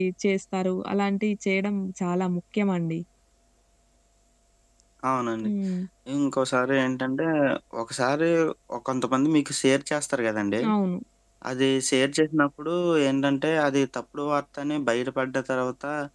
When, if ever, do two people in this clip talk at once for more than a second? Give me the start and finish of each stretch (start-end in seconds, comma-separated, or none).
none